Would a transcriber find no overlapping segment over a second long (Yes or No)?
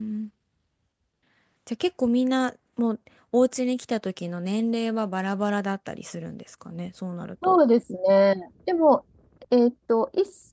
Yes